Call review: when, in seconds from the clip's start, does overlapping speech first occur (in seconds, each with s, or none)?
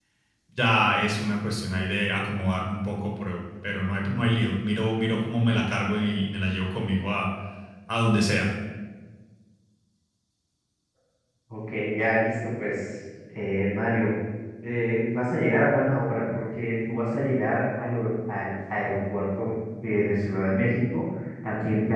none